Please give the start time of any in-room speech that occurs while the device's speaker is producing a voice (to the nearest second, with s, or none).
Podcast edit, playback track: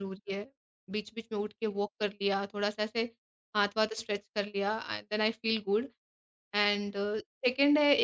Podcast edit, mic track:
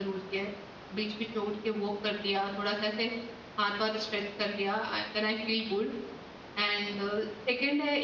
none